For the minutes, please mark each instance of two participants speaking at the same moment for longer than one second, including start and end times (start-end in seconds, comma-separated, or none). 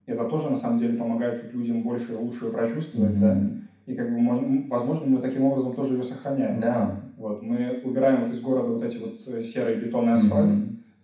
none